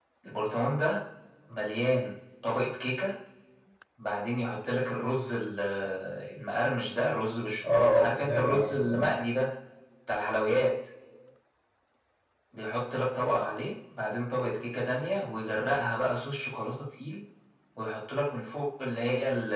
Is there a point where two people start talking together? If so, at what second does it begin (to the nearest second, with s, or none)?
8 s